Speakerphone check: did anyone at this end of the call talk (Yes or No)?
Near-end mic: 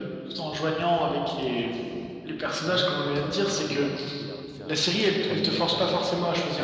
Yes